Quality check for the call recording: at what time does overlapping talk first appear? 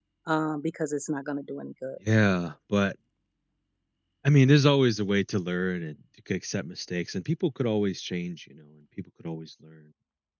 none

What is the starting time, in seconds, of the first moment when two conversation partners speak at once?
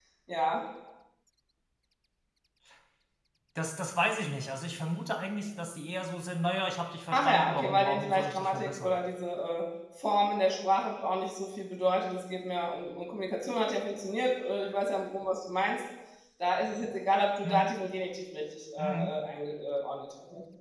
7.1 s

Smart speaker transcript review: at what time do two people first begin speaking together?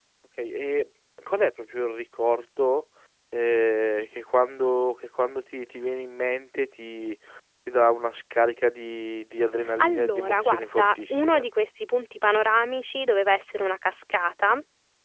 9.8 s

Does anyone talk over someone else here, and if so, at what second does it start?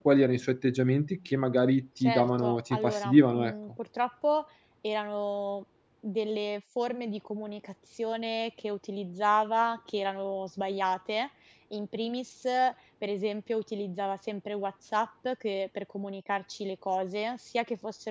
2.0 s

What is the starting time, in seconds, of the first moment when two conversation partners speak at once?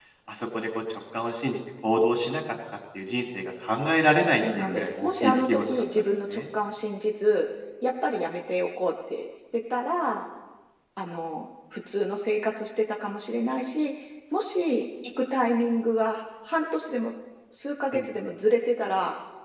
4.4 s

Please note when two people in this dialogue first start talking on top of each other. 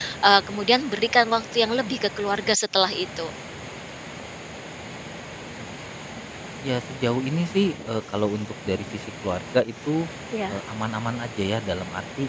none

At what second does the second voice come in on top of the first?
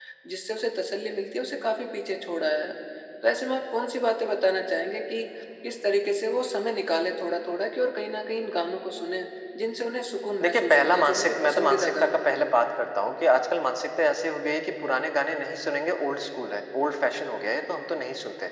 10.4 s

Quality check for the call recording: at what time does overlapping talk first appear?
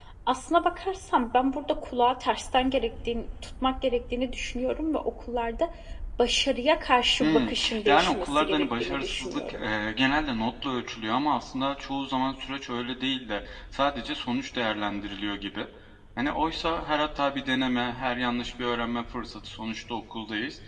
7.2 s

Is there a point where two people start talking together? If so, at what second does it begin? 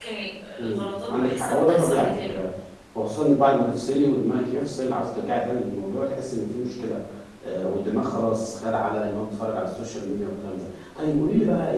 0.6 s

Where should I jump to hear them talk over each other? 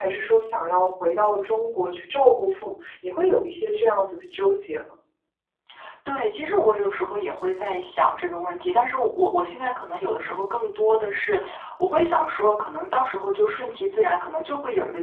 none

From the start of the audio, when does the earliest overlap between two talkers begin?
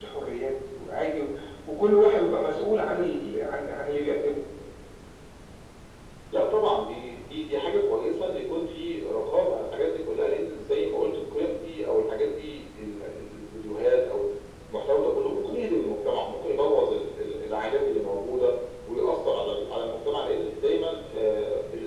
none

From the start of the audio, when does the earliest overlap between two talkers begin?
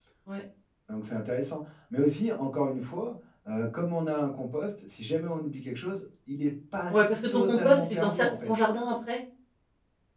7.3 s

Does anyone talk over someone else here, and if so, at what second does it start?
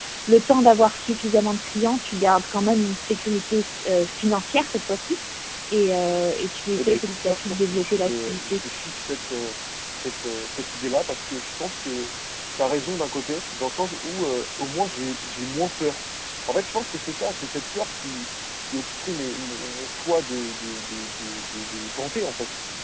6.8 s

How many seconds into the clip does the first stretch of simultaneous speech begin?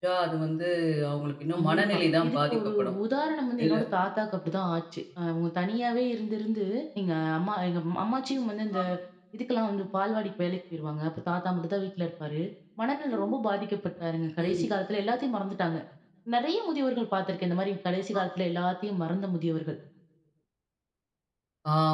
1.6 s

